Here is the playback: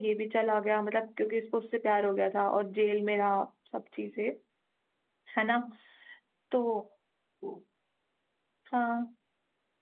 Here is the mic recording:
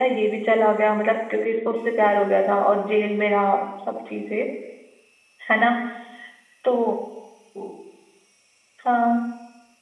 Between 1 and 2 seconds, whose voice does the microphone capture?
echo only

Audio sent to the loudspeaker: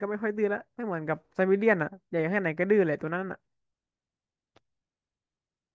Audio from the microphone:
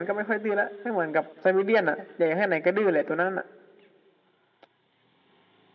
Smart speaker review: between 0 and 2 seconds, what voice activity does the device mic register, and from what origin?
echo only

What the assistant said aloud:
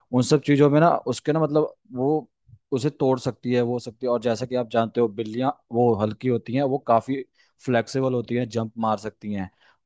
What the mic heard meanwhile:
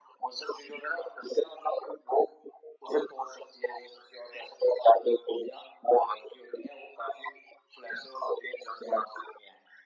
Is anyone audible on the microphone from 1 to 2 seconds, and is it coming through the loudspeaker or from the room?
echo only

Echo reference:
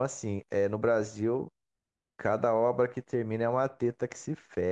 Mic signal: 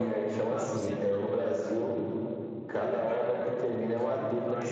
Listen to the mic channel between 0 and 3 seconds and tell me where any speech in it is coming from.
both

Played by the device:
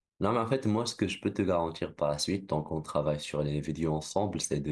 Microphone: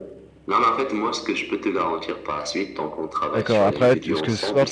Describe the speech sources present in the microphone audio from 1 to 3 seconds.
echo only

